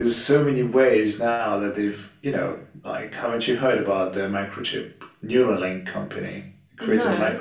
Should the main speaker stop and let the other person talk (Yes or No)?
No